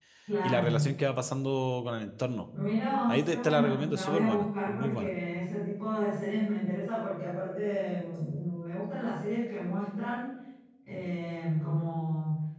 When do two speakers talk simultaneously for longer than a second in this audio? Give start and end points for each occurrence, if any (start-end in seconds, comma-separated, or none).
3.1-5.1